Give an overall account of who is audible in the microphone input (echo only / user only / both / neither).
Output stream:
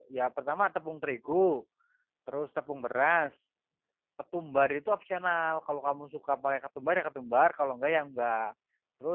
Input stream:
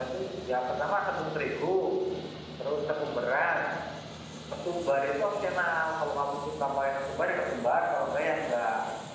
echo only